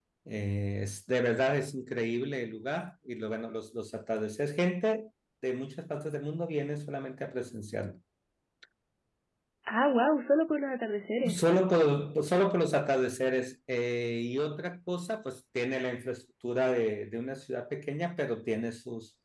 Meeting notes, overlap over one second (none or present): none